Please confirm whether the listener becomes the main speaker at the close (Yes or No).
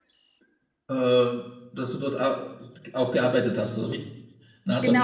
Yes